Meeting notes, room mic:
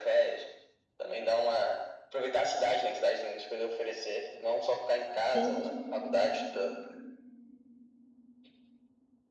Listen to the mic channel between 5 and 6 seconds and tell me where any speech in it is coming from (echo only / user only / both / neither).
both